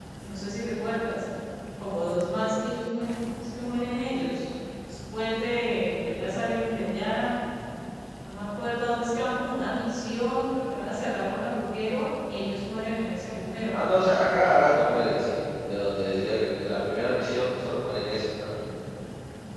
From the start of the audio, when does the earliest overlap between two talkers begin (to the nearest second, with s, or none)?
none